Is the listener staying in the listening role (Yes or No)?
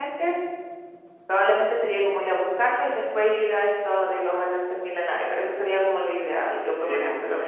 No